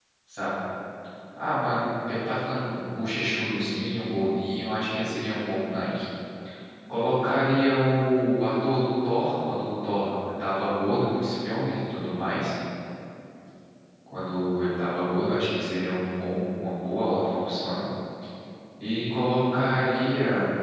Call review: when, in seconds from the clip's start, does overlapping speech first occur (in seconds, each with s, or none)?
none